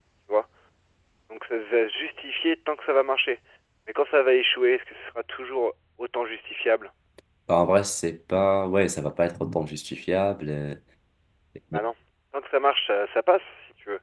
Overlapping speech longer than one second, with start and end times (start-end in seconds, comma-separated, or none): none